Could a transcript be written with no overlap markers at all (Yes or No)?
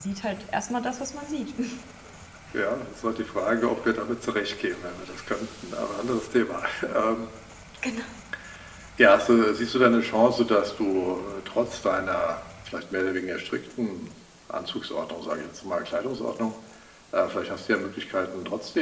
Yes